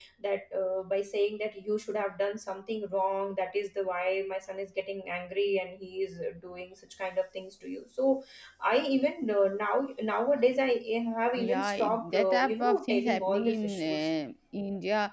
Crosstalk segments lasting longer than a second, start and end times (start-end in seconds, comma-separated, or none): 11.3-14.1